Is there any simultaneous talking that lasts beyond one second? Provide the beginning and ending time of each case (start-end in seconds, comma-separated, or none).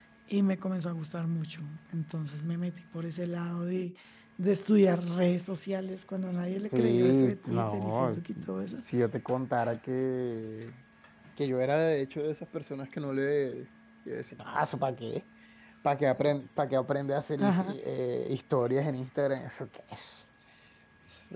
6.7-8.2